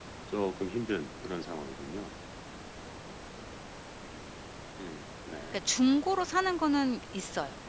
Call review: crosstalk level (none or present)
none